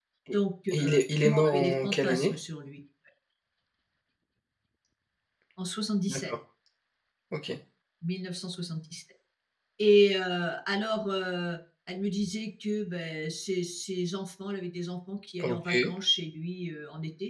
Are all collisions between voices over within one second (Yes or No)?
No